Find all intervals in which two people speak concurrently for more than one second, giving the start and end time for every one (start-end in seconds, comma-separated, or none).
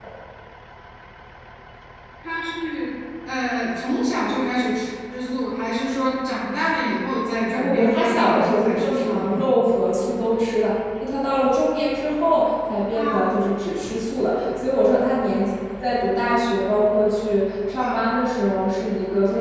7.5-9.4